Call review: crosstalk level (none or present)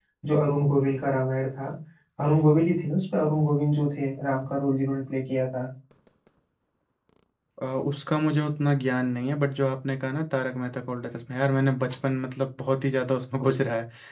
none